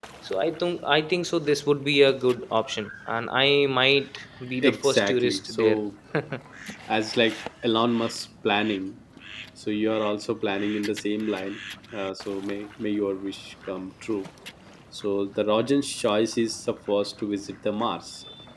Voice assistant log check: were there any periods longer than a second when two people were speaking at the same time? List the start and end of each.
4.6-5.8

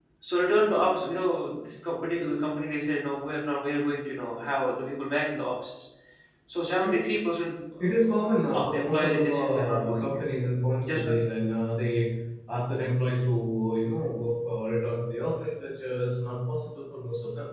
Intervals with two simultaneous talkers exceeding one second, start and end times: 7.8-10.1

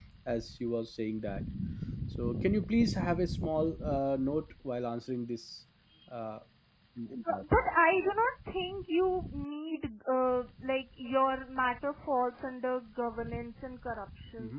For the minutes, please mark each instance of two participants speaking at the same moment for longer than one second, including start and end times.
none

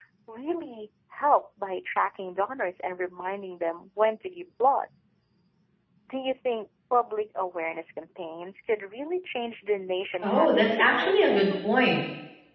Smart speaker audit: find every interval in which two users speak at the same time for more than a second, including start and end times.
10.2-11.7

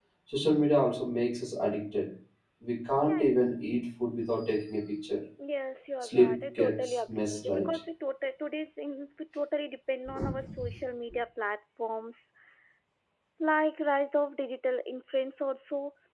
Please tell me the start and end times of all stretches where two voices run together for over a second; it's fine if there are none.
6.0-7.8

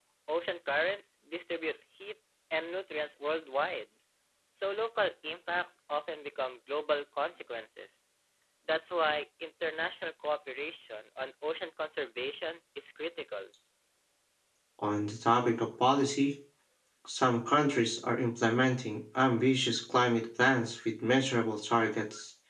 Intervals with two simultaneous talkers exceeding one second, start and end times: none

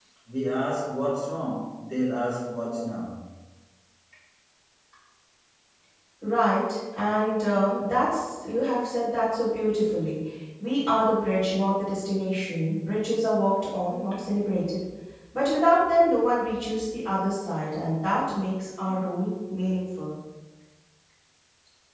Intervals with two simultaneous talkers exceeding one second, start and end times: none

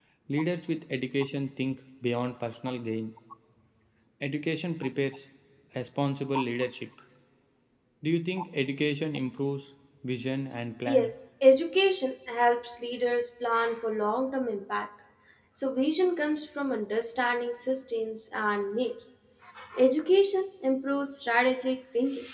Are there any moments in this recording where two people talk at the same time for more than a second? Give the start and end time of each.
none

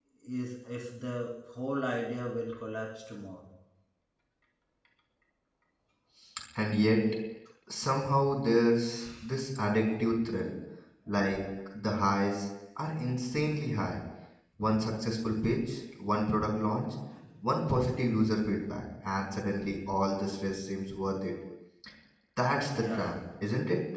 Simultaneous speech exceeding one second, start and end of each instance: none

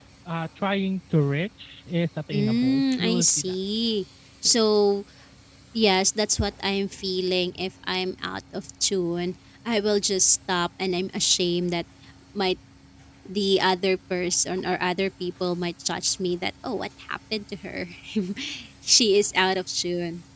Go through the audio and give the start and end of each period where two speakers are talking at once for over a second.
2.3-3.5

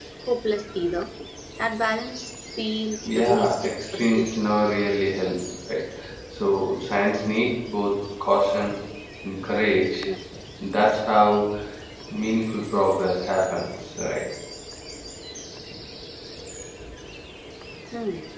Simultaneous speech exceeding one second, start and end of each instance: 3.1-4.5

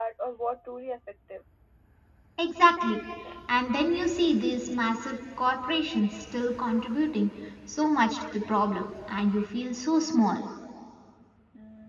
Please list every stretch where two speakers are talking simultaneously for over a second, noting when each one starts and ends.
none

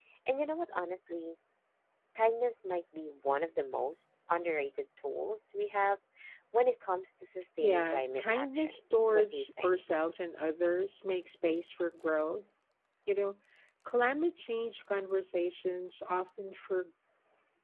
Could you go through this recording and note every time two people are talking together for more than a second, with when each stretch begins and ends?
7.6-9.7

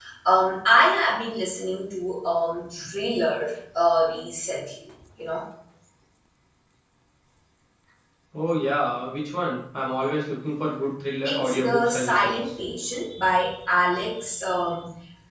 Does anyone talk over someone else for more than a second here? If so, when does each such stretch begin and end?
11.2-12.5

